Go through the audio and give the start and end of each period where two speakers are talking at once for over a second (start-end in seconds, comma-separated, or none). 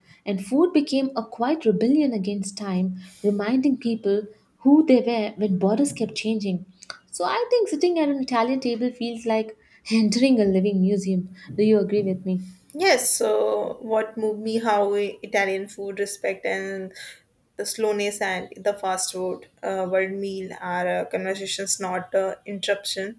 none